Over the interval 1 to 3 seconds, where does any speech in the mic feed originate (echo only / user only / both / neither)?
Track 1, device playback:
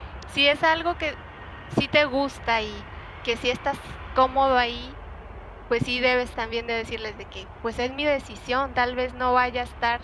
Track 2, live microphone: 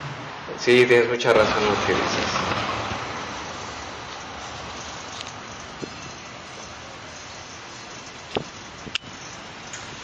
user only